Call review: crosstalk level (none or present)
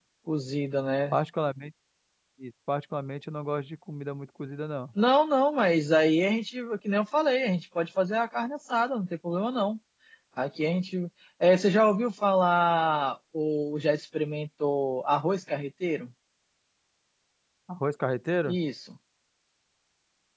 none